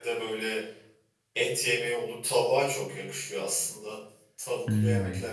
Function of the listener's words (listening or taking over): listening